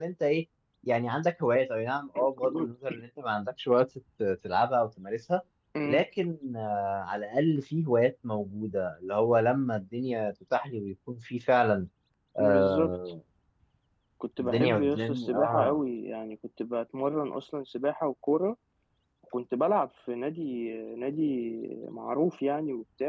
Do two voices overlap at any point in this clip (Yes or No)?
Yes